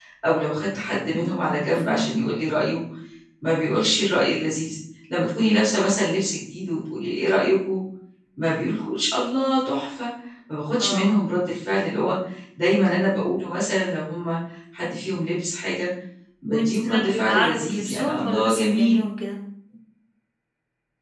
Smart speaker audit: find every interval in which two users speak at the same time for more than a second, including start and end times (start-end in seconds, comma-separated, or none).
16.5-18.9